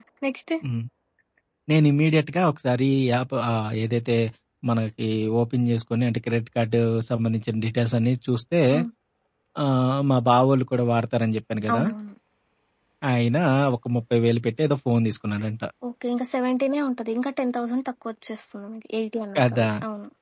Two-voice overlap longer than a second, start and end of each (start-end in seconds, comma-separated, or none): none